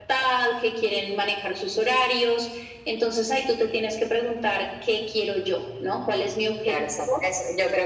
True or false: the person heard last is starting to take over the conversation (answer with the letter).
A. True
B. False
A